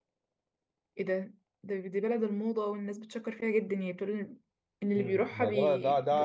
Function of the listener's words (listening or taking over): taking over